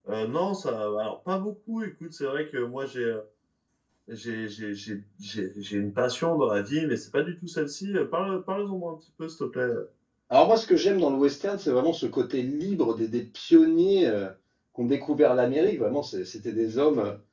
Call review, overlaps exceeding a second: none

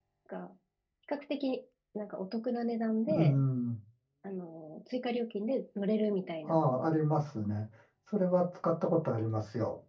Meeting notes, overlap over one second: none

